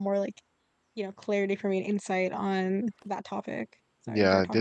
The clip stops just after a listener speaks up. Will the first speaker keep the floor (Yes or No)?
No